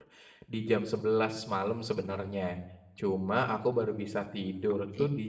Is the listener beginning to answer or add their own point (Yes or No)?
No